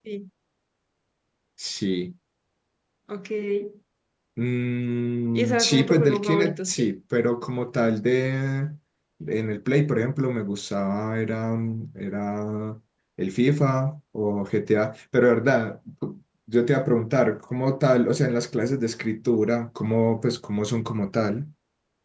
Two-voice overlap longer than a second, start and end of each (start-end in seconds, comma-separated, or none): 5.4-6.9